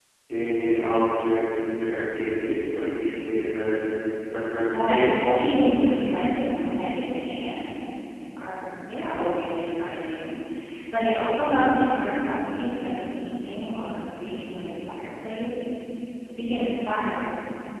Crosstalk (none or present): present